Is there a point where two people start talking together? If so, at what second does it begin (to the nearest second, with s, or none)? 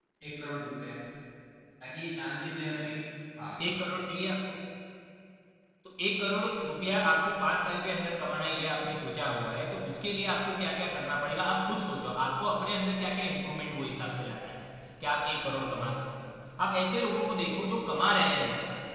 none